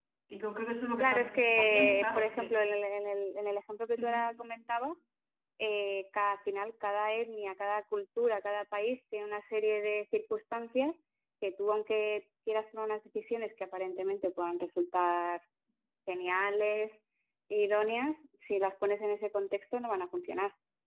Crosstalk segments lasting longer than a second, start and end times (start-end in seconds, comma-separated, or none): 1.0-2.5